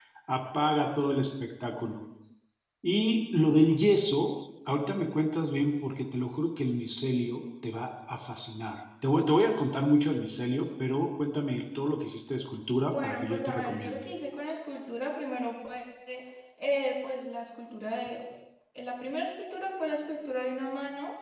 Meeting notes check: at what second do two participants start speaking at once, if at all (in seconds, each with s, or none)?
12.8 s